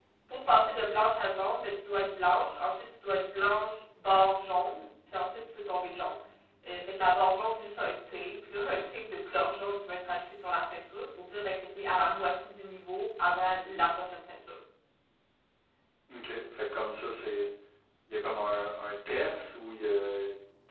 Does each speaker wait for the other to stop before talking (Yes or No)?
Yes